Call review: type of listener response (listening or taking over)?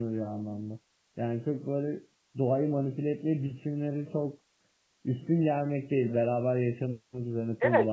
taking over